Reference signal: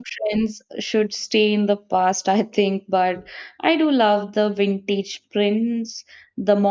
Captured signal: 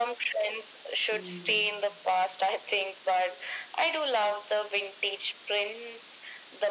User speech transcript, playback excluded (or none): mm.